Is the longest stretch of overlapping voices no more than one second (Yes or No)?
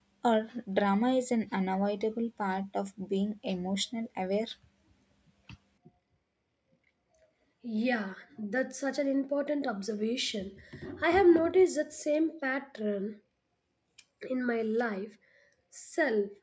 Yes